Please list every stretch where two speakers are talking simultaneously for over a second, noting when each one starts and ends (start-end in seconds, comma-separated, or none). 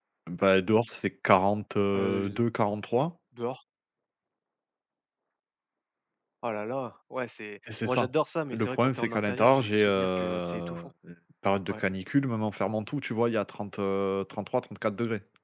8.5-10.9